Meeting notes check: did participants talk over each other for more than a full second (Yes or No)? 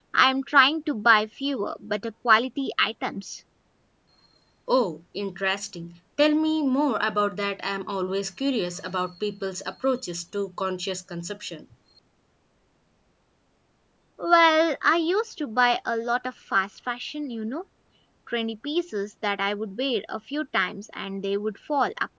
No